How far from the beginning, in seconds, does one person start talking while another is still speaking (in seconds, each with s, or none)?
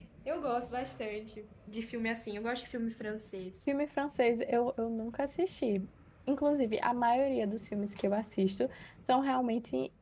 none